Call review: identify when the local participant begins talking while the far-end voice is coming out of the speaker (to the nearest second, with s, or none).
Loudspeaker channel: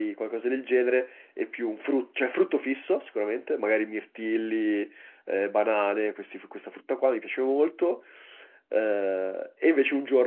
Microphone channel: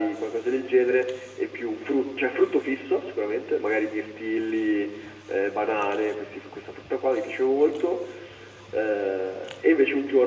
none